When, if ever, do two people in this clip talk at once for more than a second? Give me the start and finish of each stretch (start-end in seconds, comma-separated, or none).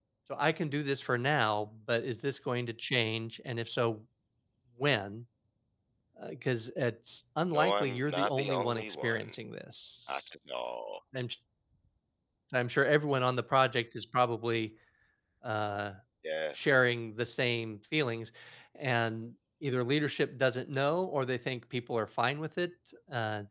7.5-9.3